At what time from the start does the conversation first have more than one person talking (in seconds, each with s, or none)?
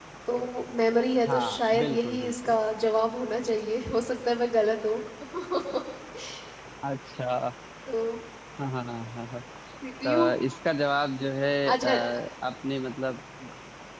1.3 s